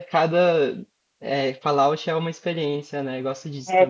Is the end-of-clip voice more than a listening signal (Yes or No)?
Yes